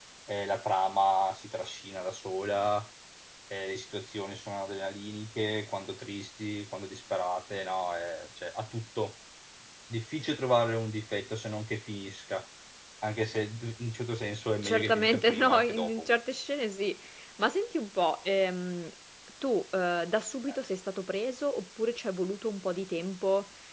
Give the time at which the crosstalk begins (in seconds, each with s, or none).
14.6 s